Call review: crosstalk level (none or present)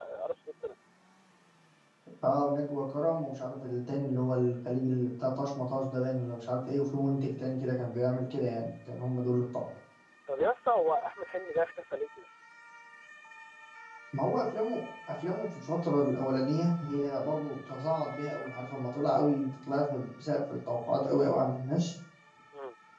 none